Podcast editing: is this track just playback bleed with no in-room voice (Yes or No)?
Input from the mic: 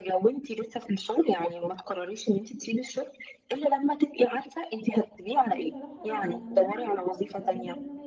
No